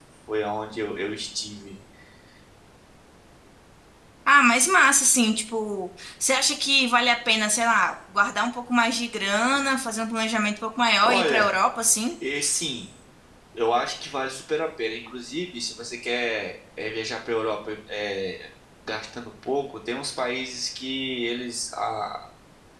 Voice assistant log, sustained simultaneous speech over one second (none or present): none